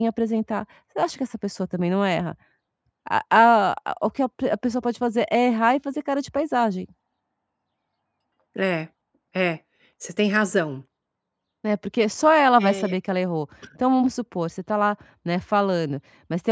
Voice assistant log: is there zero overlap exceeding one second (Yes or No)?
Yes